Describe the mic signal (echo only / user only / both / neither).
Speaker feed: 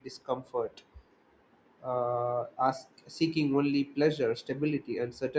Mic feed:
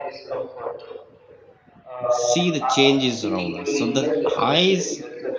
both